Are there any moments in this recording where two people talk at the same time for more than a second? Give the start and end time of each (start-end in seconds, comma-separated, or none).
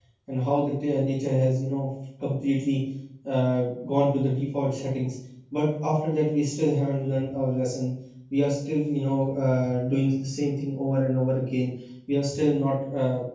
none